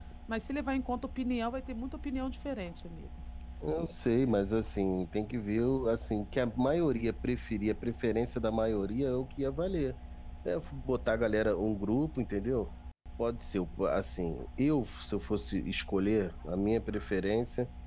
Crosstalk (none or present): none